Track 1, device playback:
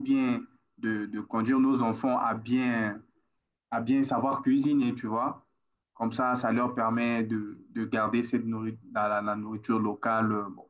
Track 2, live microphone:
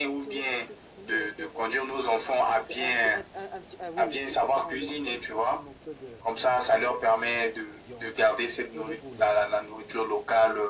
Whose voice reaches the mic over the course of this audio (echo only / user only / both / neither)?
both